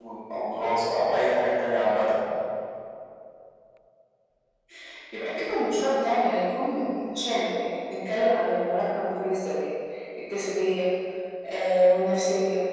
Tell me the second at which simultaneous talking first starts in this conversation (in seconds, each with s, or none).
none